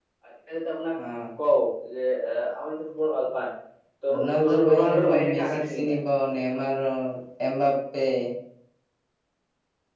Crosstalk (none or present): present